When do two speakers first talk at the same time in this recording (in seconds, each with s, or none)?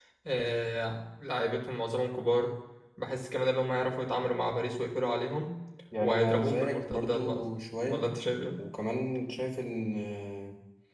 6.0 s